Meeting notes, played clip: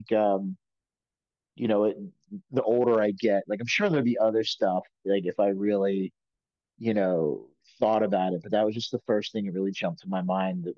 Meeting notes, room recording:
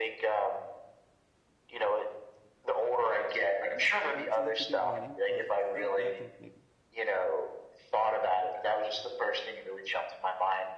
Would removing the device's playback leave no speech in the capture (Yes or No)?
No